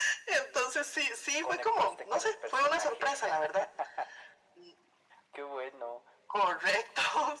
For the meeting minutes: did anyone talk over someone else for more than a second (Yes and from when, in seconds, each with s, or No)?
Yes, from 1.4 s